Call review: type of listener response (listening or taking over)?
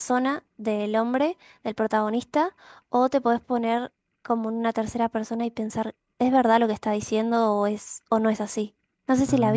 taking over